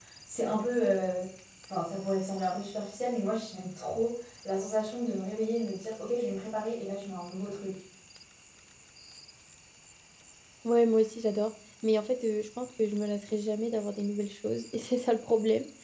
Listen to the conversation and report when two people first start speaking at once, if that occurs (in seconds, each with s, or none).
none